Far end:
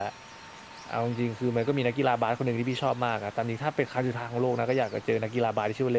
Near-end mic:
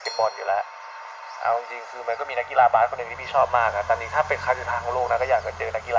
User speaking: No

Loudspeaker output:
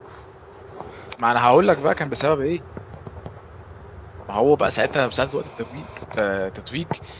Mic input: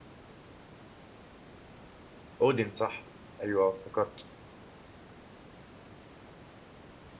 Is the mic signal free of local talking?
No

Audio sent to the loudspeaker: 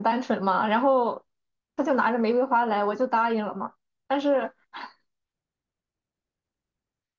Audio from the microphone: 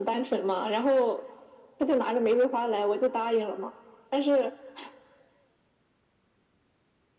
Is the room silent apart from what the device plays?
Yes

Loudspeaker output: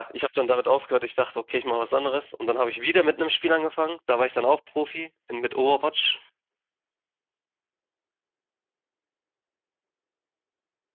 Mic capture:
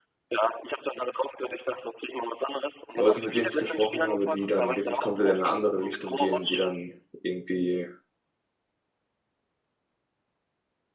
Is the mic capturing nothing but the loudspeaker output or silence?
No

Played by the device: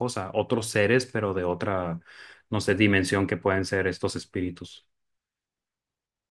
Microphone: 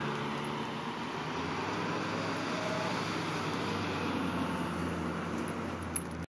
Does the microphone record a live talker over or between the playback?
No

